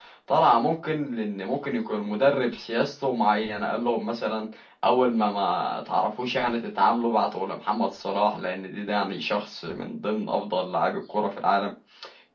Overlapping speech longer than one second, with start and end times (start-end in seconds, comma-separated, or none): none